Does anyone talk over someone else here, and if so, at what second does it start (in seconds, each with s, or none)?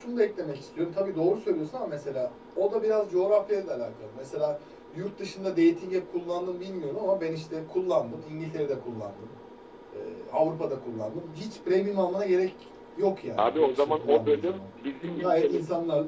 13.4 s